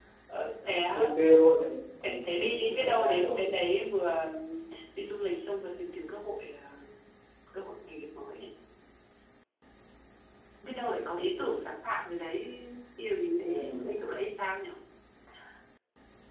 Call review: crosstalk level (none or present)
present